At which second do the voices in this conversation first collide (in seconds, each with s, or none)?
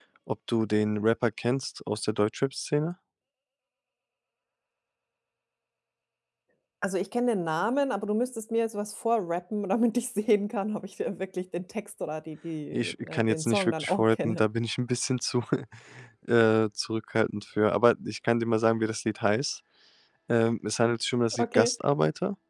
12.7 s